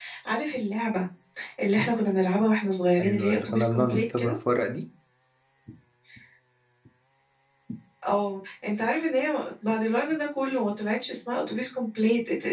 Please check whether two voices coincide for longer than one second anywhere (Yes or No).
Yes